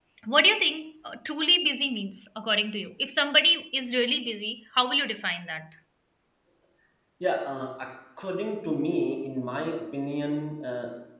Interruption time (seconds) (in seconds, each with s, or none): none